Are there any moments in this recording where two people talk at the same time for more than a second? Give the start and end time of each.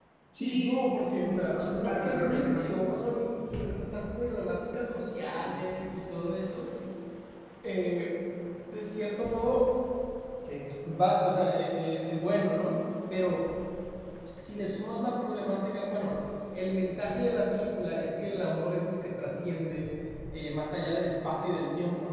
1.1-3.0

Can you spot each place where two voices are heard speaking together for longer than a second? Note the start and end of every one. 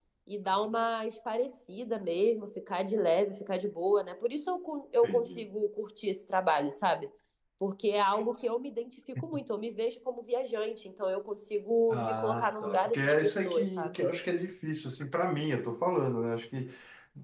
11.9-14.0

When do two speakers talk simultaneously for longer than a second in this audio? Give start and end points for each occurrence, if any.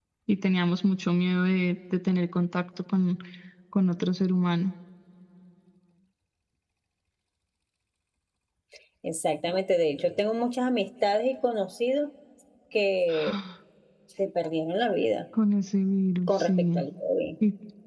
none

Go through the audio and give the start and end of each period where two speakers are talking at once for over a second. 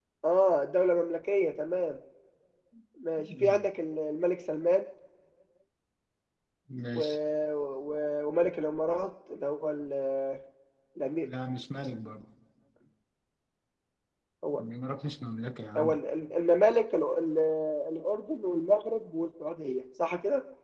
none

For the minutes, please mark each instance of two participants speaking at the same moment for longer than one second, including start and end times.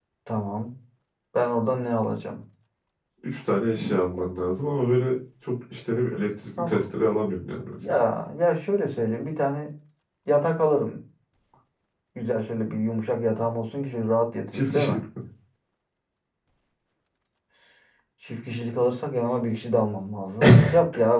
none

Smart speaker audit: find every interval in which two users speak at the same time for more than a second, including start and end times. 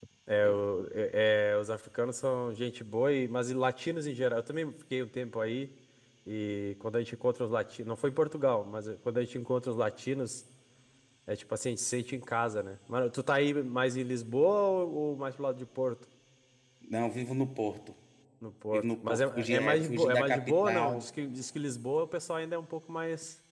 18.7-21.1

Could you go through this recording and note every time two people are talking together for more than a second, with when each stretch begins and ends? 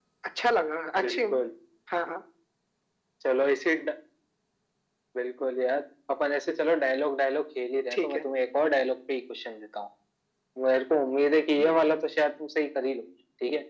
none

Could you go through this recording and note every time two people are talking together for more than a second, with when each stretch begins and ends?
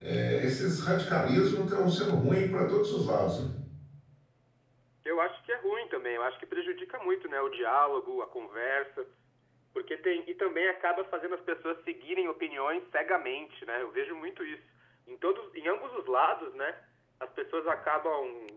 none

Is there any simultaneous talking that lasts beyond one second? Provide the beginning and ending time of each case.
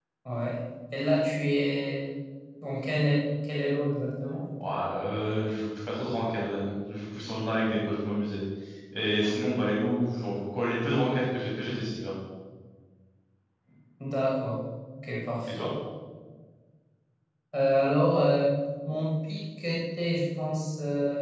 none

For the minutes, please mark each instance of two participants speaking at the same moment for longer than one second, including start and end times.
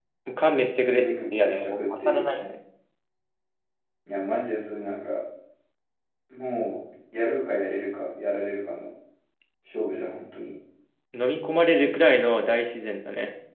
0.8-2.3

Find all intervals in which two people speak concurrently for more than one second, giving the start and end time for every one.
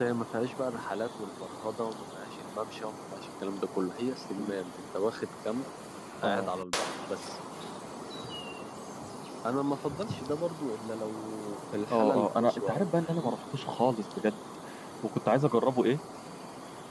11.9-13.3

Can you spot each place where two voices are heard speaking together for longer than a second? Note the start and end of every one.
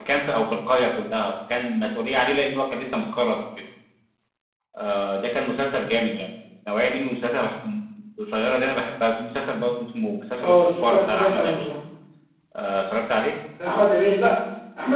10.4-11.7

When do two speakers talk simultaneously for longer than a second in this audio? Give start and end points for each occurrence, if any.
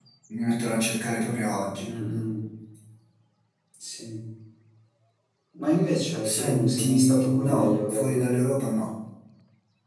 6.2-8.3

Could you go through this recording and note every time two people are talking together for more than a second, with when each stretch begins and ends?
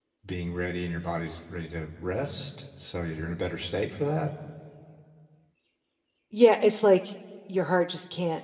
none

